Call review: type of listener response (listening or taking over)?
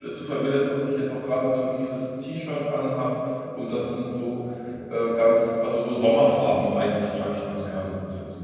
taking over